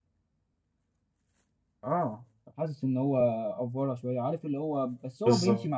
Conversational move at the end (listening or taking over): listening